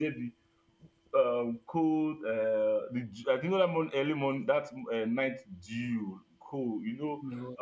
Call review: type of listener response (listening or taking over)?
listening